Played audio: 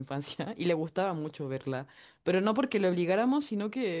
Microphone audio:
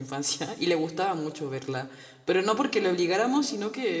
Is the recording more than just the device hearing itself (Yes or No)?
No